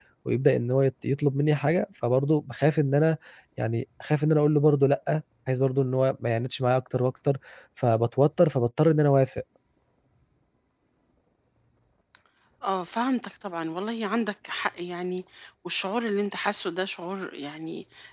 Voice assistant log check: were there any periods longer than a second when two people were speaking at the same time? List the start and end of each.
none

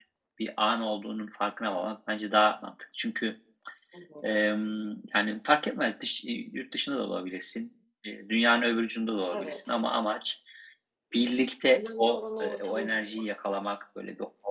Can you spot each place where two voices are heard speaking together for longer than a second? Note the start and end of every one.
11.8-13.2

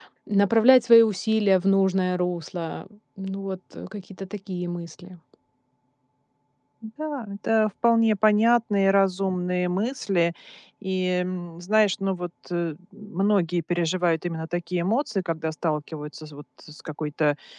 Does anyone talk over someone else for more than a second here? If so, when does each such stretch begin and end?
none

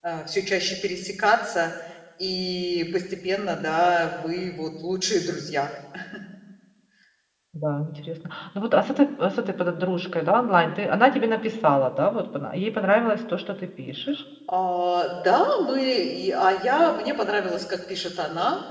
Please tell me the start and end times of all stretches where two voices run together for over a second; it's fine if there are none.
none

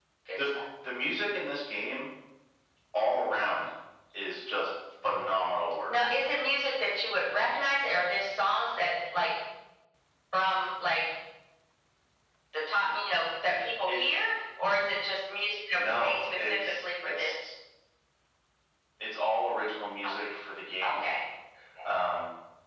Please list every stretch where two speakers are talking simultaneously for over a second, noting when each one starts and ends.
15.7-17.5

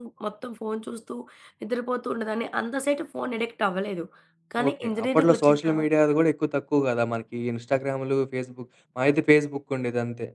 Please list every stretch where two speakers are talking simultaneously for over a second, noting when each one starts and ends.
4.7-5.9

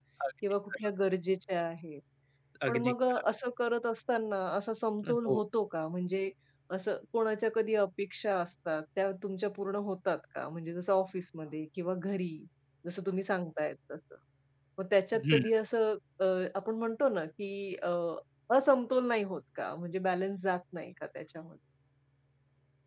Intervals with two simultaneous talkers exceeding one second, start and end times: none

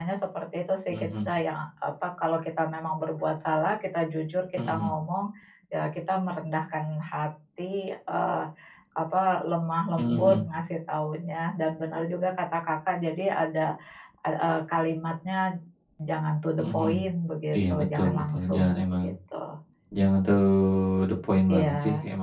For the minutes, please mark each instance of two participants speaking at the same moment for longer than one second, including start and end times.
17.5-19.0

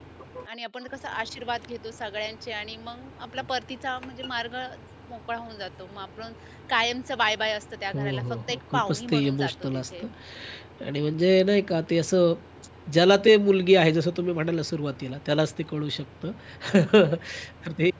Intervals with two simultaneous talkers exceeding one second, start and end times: 7.9-10.0

